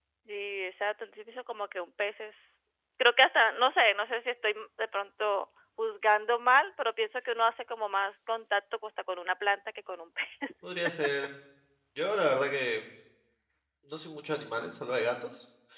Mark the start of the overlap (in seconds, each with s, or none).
none